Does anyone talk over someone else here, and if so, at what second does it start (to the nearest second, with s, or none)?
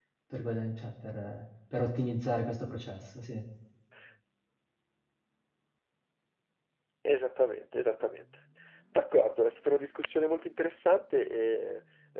none